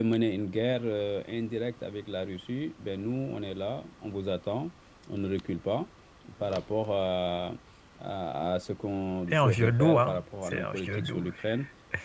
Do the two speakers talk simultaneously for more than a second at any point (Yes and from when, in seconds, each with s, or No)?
Yes, from 9.3 s